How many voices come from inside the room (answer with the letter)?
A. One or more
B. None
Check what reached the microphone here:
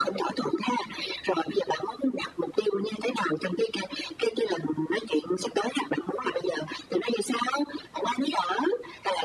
B